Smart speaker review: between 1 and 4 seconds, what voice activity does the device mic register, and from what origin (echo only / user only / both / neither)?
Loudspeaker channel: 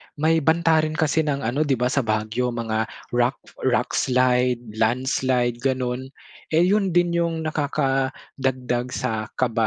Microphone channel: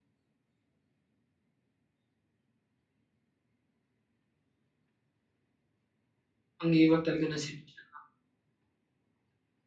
neither